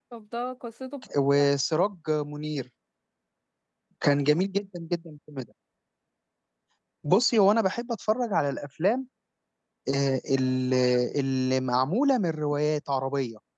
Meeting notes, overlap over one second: none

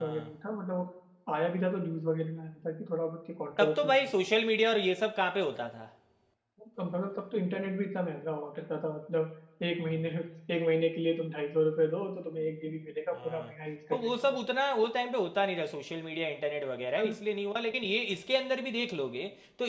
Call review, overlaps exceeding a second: none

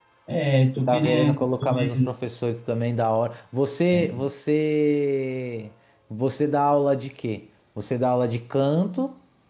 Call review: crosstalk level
present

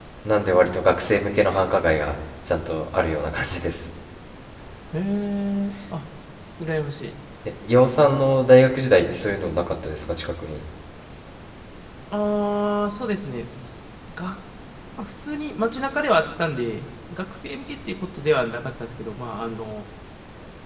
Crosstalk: none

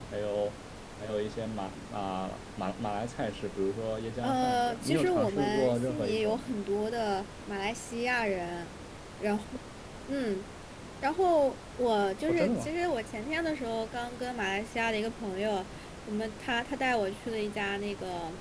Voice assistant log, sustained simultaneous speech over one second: present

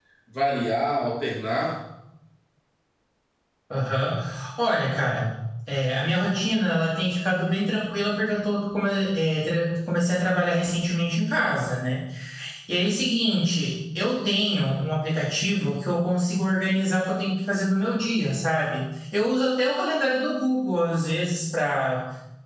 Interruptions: none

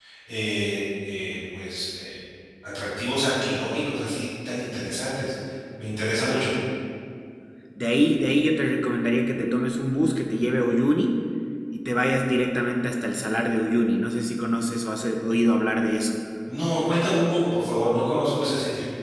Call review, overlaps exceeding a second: none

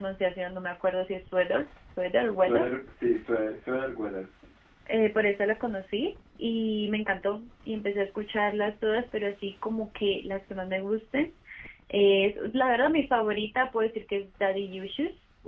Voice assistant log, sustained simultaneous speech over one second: none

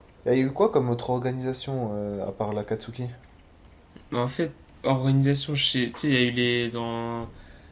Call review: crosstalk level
none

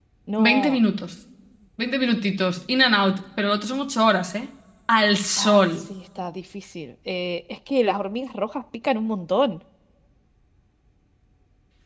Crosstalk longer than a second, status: none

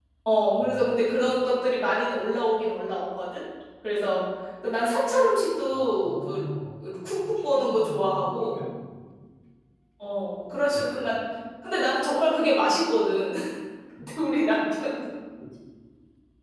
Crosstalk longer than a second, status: present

